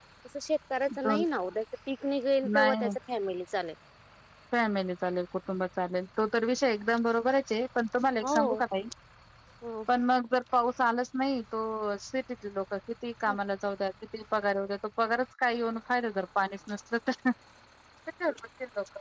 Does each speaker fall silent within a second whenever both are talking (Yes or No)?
Yes